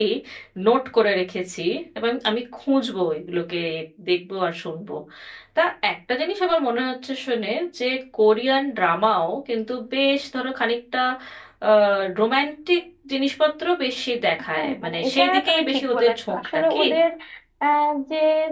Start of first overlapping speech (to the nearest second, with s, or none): 15 s